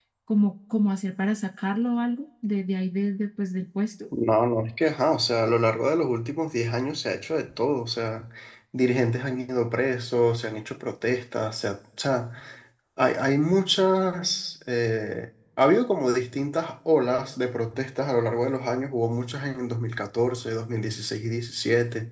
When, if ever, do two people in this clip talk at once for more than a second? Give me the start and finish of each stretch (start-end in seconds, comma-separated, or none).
none